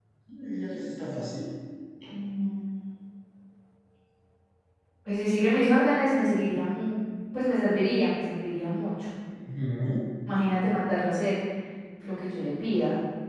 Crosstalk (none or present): none